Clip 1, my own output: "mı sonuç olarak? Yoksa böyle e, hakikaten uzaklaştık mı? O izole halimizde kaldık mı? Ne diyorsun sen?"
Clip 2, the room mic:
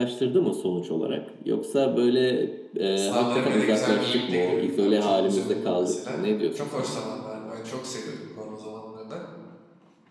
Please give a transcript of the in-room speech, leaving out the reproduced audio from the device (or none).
Sınavlara bile ne güzel birlikte giriyorduk abi. Çok güzel oluyordu mesela. Çok hoş zamanlardı. Ben çok seviyordum korona zamanlarını.